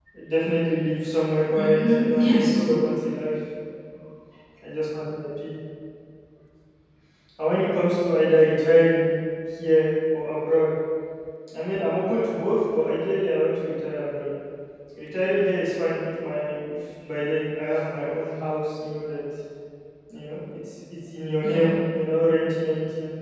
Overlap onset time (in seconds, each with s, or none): 1.6 s